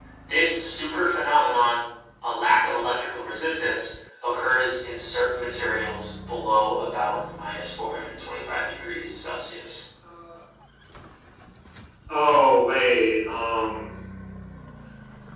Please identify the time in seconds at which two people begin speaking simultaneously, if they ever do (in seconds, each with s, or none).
none